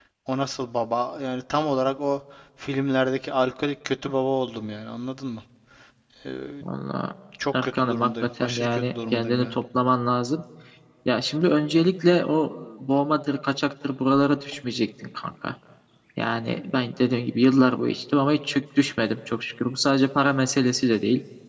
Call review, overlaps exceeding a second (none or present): present